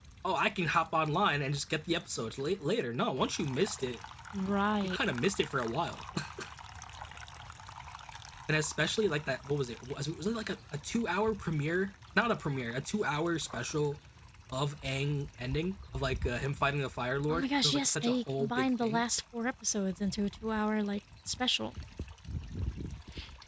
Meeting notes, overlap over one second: present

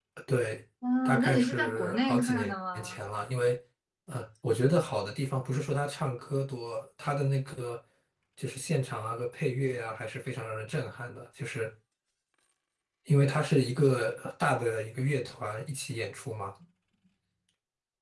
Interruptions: present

